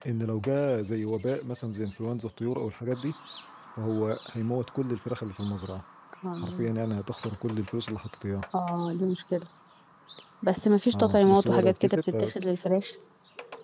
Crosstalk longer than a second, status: present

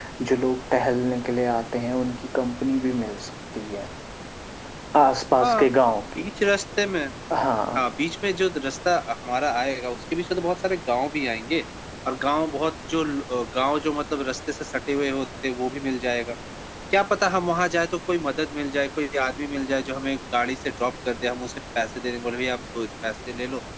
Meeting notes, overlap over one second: none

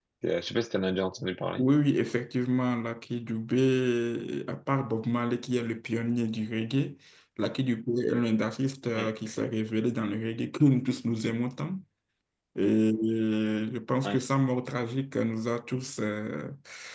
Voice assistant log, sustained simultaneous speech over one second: none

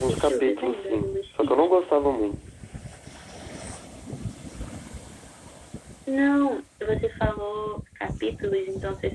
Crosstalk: present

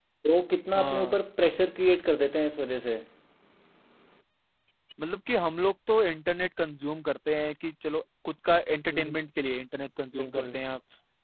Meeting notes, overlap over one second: none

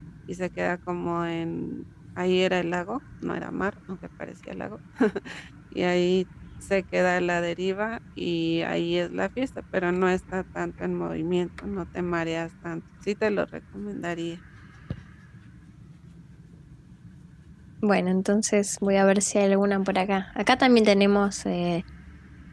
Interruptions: none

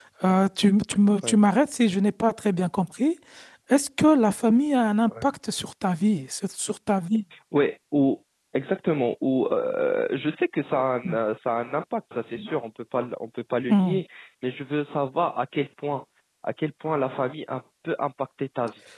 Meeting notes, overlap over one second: none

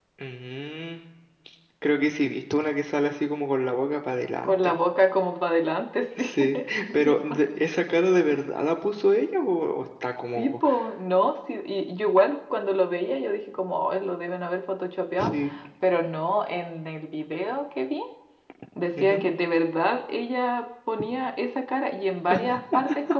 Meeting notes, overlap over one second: present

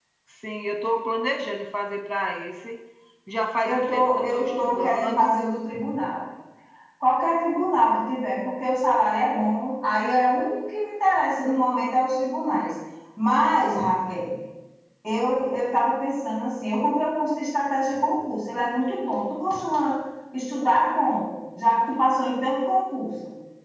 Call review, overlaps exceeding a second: present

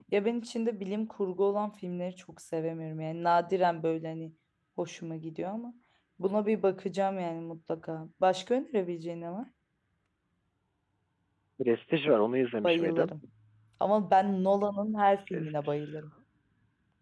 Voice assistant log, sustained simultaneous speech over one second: none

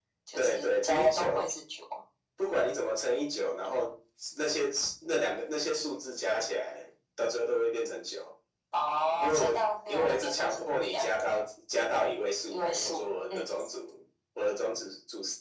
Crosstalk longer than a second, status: present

